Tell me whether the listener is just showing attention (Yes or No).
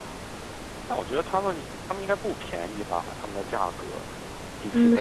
No